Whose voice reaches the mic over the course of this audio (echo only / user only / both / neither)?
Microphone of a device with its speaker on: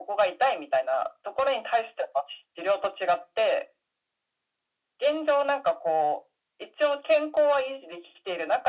echo only